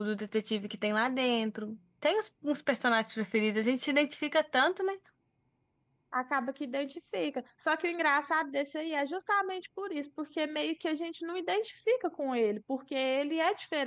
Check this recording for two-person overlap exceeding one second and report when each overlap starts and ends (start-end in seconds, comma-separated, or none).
none